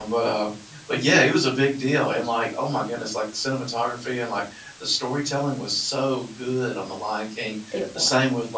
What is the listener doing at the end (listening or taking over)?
listening